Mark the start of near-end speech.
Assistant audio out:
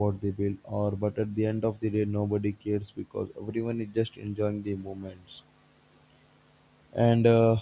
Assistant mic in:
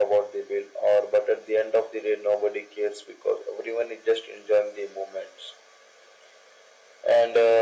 none

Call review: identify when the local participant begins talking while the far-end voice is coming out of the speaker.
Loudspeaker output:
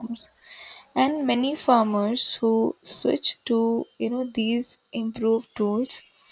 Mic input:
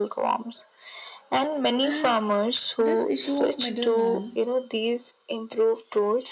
1.8 s

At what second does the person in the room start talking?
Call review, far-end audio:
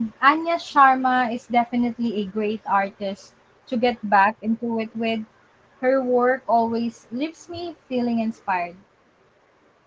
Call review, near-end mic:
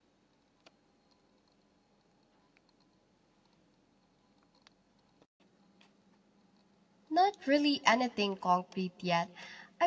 7.1 s

